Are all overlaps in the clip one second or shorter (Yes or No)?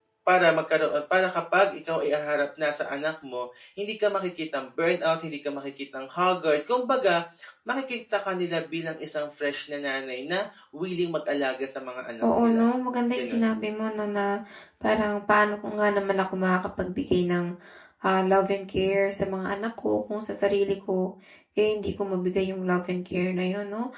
Yes